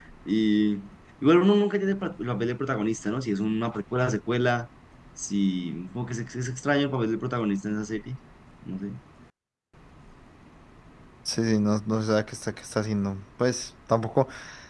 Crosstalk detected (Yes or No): No